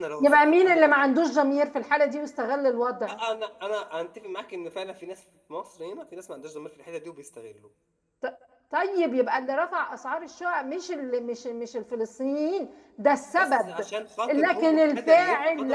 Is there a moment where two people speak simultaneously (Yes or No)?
Yes